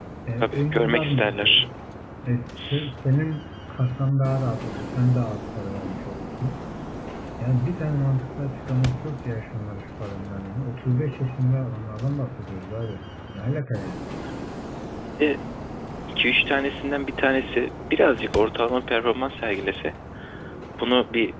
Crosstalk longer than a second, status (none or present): present